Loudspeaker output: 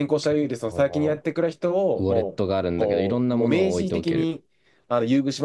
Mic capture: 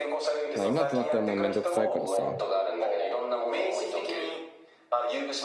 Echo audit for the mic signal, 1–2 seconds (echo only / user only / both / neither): both